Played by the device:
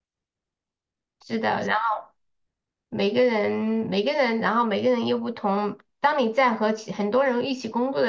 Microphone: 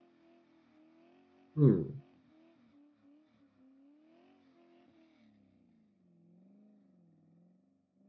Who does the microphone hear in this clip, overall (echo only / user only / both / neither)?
user only